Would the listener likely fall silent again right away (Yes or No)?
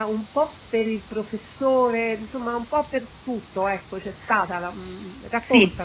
No